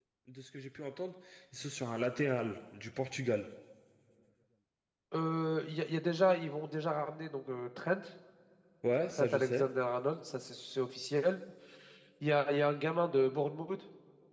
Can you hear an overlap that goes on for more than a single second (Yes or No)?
No